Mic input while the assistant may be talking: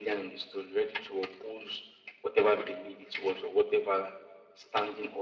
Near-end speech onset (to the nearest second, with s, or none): none